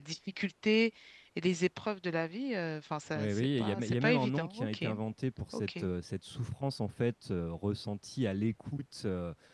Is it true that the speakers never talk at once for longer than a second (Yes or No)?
No